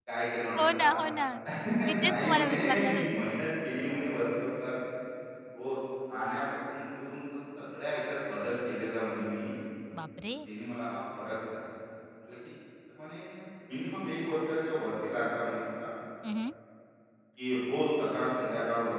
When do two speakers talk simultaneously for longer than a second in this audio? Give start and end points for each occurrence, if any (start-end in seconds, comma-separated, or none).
1.9-3.3